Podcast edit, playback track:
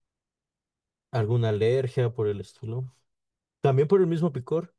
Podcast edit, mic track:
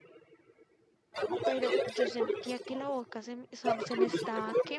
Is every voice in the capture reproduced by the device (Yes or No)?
No